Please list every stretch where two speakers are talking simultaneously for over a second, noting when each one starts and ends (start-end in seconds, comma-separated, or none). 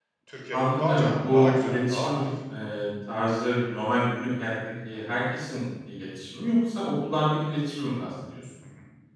0.5-2.3